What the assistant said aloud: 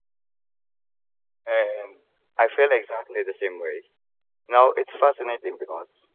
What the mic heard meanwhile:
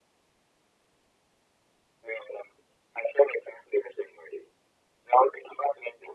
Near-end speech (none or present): none